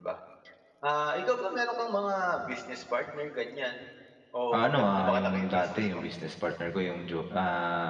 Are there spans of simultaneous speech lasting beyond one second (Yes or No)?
Yes